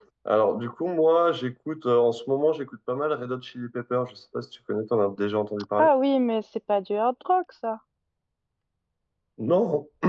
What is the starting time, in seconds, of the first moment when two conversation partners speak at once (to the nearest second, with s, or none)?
none